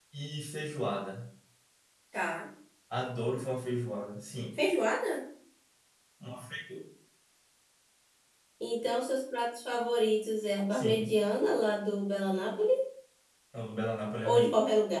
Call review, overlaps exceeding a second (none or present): none